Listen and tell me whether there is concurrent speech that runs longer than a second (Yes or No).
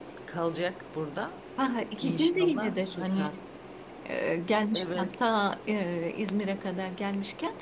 Yes